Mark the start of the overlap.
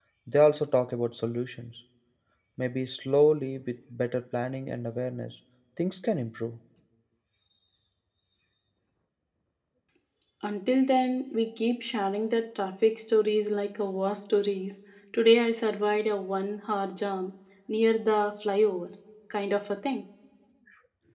none

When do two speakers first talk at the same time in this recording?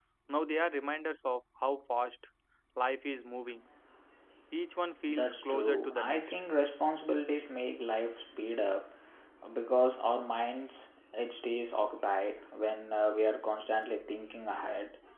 5 s

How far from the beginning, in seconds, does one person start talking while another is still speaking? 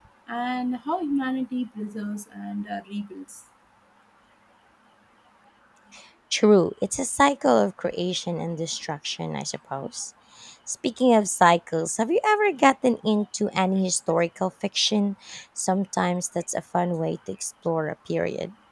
none

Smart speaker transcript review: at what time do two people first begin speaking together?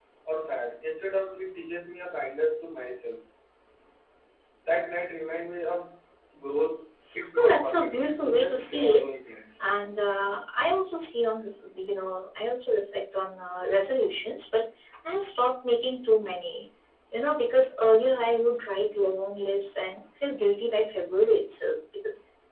7 s

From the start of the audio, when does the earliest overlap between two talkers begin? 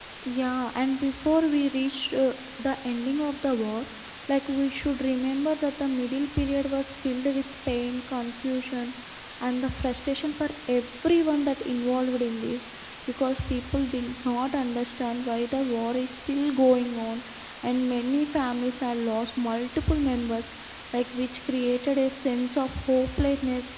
none

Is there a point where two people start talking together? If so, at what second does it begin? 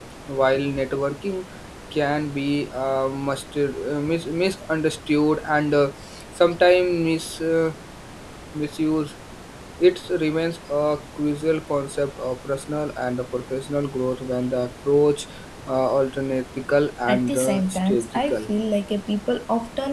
17 s

